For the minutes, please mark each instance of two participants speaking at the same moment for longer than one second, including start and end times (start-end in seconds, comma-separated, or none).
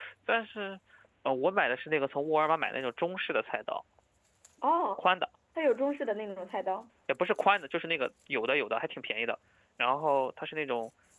none